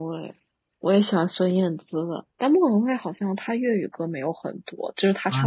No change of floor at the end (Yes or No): No